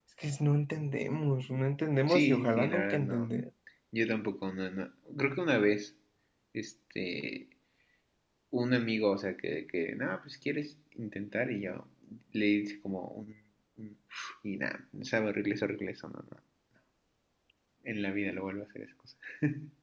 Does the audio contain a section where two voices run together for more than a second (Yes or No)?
Yes